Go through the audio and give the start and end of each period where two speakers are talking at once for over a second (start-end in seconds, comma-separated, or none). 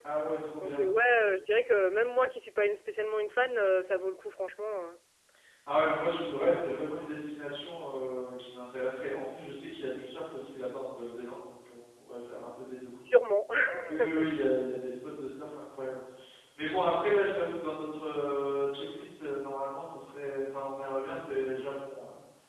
none